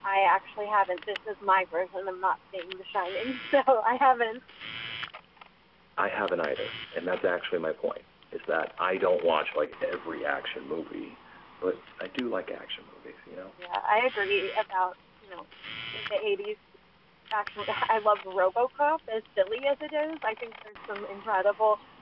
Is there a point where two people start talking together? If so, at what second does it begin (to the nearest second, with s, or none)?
none